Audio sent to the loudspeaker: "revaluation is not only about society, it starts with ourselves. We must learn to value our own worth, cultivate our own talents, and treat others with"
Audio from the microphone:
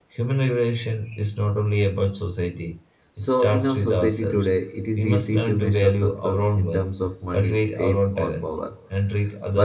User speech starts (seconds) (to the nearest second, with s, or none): 3 s